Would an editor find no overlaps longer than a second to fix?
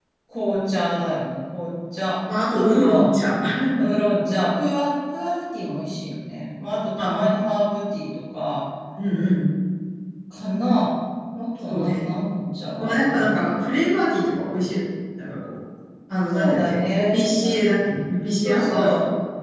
No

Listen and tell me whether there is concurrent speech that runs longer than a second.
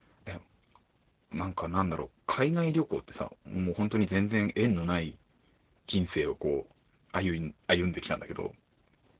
No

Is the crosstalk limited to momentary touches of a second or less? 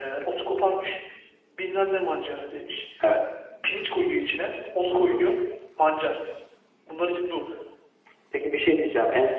Yes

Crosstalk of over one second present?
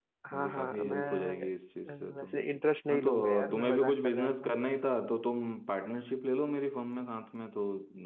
Yes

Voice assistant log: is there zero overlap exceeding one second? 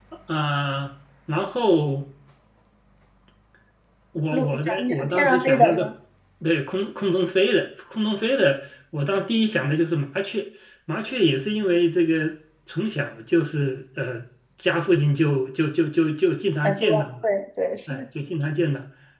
No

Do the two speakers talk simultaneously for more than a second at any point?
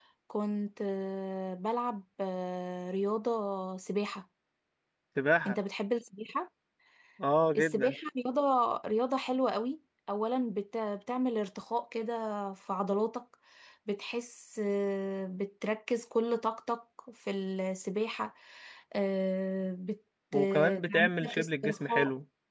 Yes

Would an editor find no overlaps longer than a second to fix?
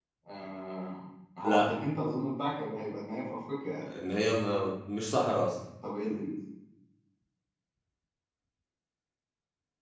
Yes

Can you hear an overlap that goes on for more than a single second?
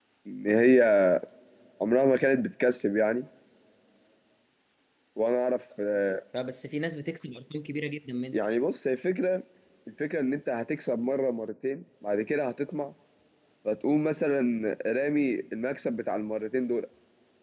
No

